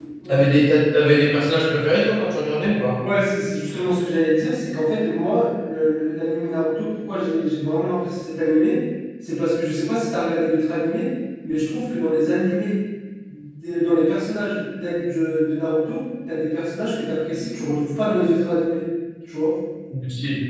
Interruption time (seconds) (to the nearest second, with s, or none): none